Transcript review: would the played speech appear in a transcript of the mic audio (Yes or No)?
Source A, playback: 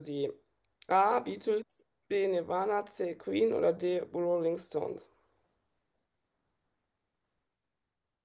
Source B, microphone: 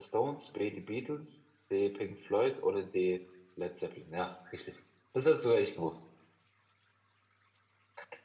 No